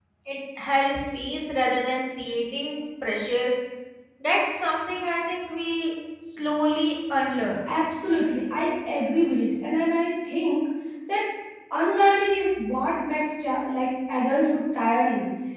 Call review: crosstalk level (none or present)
none